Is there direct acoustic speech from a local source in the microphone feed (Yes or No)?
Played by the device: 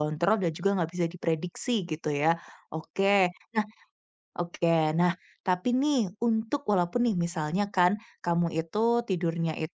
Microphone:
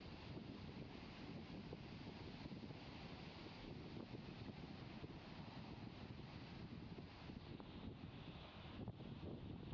No